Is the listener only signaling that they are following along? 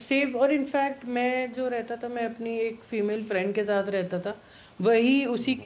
Yes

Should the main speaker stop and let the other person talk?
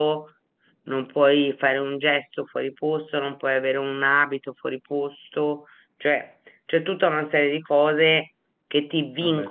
No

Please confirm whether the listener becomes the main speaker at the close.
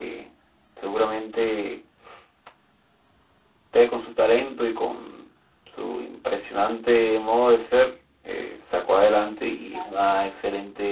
No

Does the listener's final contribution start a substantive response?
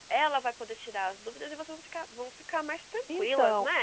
Yes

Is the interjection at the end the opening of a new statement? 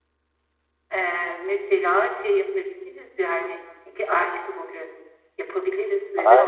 Yes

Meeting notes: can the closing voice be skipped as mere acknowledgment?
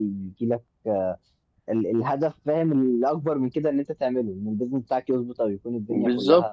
No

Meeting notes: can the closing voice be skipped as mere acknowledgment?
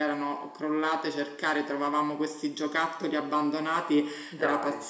Yes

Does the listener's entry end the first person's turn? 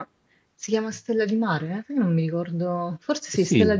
Yes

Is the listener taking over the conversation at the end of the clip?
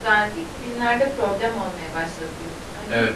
Yes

